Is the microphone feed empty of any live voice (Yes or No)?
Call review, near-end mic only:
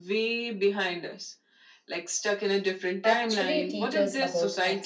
No